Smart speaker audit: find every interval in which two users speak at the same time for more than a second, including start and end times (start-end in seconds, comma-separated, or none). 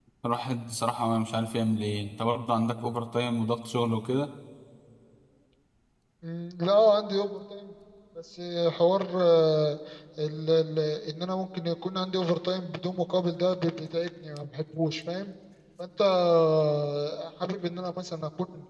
none